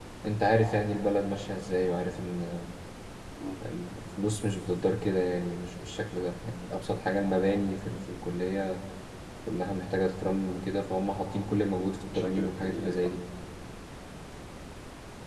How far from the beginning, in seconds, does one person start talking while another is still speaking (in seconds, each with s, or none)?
11.8 s